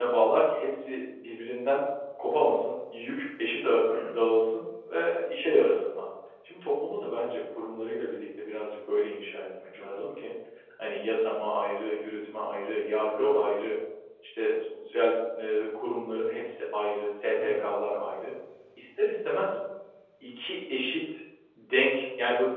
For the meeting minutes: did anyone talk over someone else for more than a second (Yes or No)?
No